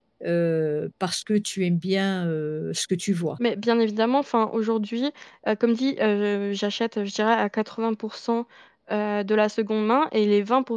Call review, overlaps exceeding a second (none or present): none